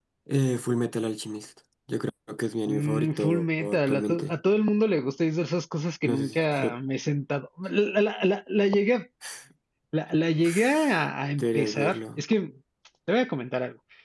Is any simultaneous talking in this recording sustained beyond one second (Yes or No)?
Yes